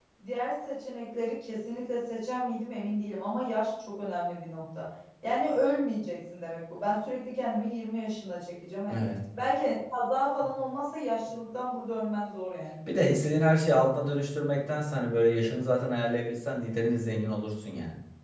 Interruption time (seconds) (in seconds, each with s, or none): none